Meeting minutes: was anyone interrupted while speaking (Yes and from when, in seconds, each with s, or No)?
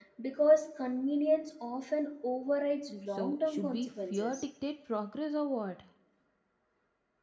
Yes, from 3.1 s